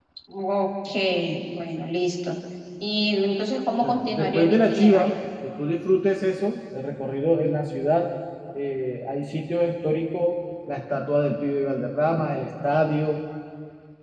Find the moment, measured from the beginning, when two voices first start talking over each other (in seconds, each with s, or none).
3.8 s